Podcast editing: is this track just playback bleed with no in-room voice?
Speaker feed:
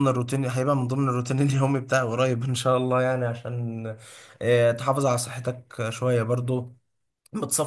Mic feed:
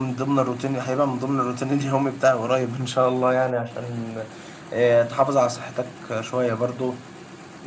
Yes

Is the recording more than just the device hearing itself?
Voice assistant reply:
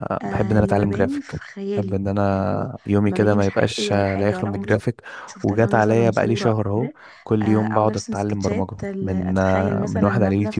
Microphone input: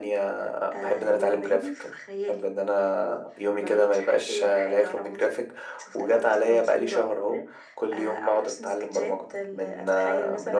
No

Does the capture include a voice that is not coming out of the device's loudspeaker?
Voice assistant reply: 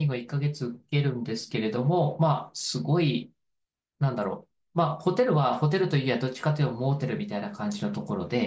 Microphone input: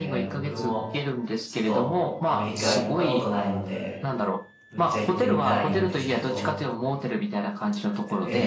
Yes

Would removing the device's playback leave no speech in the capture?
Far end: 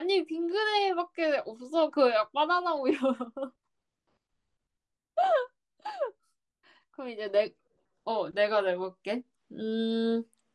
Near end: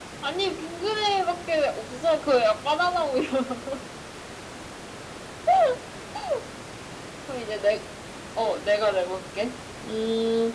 Yes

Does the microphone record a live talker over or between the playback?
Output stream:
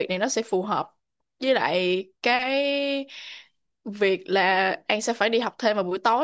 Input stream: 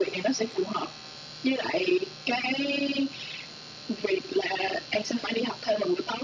No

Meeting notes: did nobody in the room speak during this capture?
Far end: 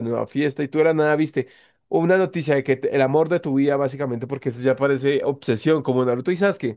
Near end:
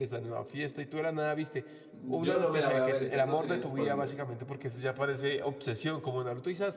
No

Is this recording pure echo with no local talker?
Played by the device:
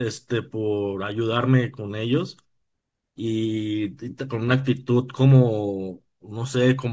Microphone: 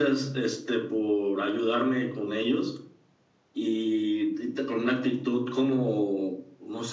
Yes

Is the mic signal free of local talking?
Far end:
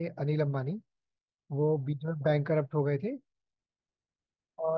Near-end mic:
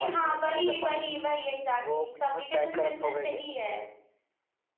No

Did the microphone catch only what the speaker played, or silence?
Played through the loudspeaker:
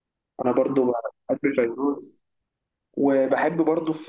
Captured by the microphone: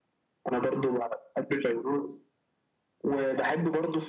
Yes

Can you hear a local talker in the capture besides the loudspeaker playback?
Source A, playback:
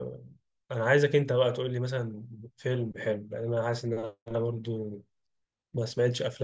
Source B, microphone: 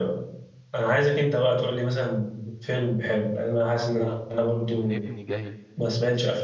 Yes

